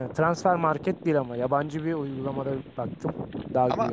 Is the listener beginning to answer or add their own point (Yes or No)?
Yes